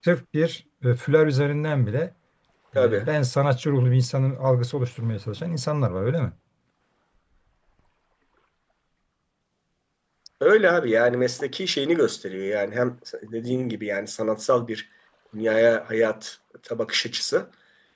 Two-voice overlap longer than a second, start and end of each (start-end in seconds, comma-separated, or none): none